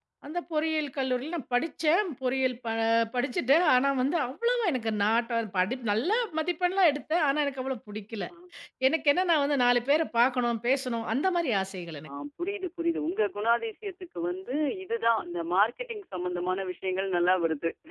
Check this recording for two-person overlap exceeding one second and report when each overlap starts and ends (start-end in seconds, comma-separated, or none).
none